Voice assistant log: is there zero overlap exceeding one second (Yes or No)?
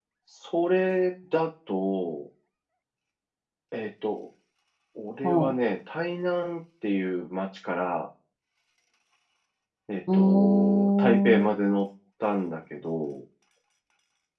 No